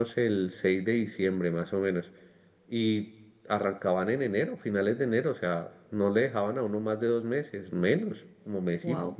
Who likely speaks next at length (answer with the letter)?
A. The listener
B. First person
B